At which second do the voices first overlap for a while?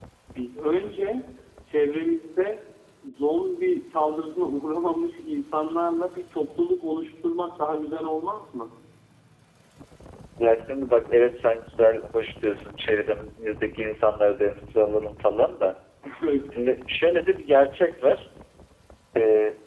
none

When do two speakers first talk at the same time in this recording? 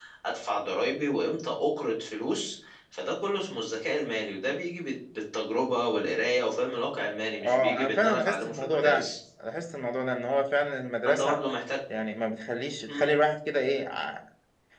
7.5 s

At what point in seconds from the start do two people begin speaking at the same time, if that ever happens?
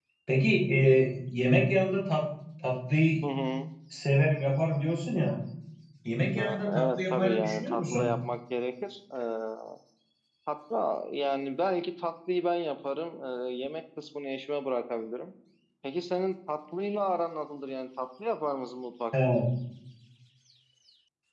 6.3 s

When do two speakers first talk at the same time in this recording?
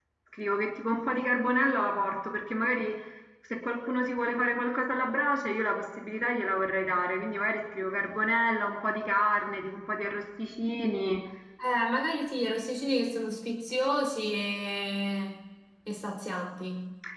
none

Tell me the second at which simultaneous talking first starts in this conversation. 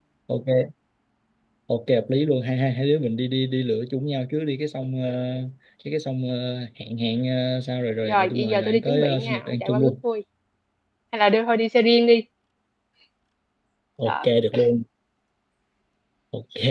8.0 s

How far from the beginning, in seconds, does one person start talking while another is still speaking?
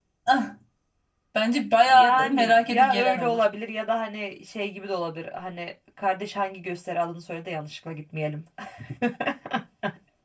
1.9 s

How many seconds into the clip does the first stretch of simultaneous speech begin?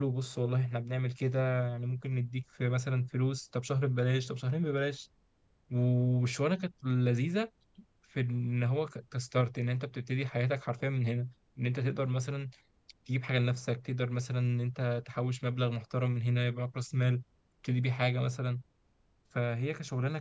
none

